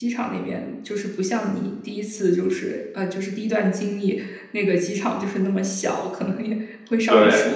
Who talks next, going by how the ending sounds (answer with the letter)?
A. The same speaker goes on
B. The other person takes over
A